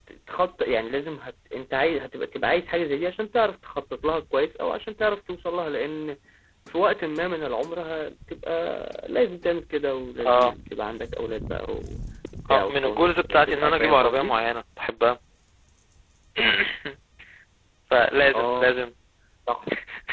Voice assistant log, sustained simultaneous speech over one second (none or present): present